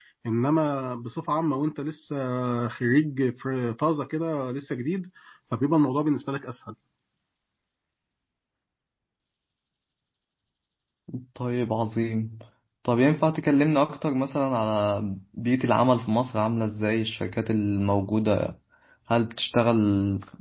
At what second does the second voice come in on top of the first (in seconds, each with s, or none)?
none